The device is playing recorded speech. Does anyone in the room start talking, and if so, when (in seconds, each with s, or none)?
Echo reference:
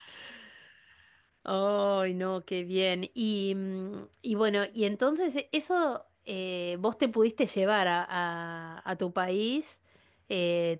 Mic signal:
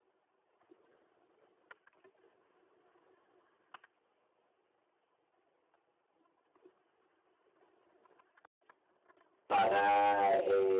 9.5 s